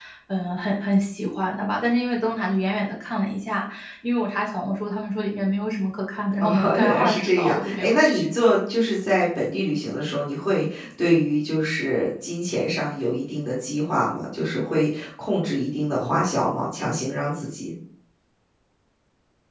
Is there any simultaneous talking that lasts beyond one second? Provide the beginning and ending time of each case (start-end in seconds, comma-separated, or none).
6.4-8.2